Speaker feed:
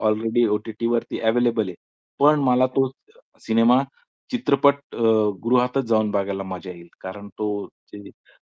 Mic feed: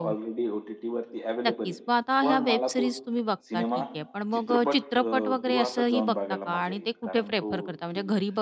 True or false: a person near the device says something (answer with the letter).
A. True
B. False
A